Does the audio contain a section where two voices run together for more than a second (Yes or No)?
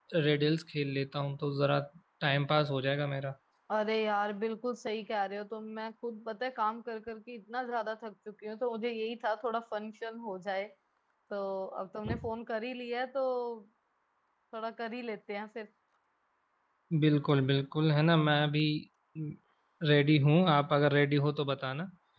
No